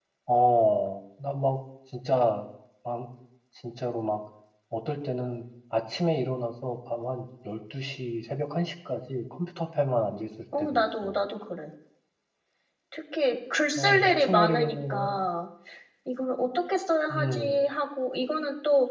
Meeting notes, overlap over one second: present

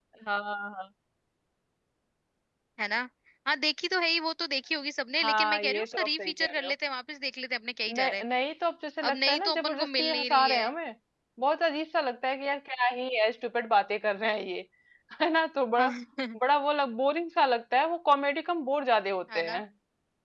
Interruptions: present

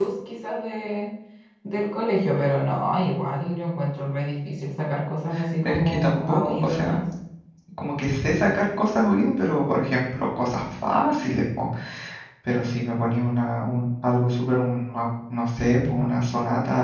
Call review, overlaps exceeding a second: present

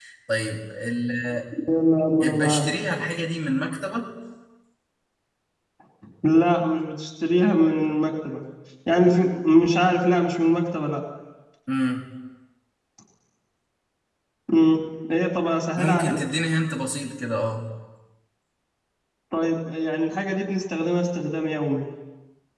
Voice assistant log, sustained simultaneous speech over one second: none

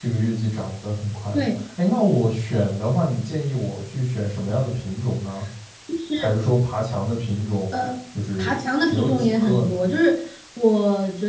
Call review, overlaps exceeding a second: present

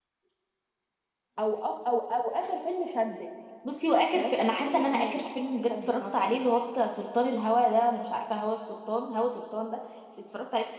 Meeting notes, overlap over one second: present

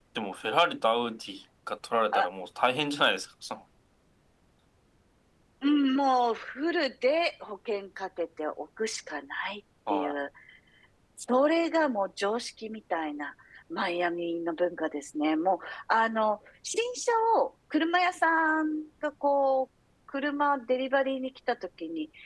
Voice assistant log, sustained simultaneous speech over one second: none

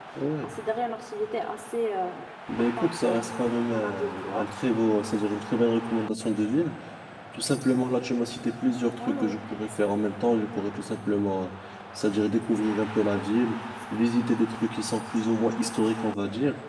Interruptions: present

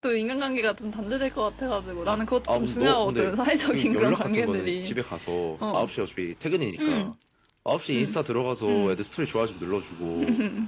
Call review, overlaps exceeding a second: present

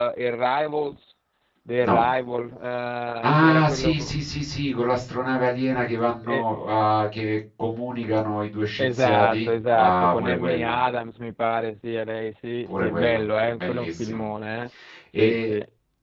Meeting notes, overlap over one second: present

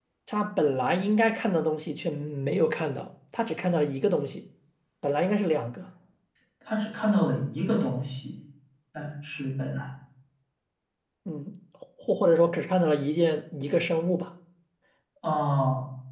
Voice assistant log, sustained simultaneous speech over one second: none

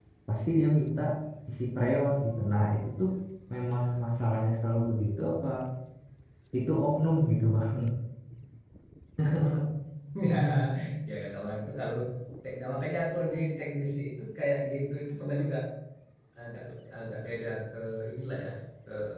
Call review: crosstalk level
none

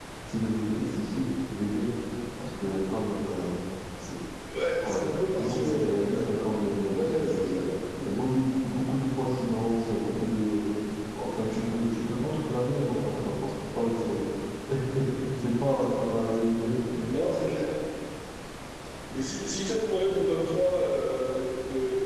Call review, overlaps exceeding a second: present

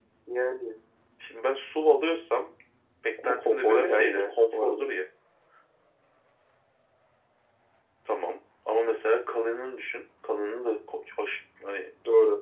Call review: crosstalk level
present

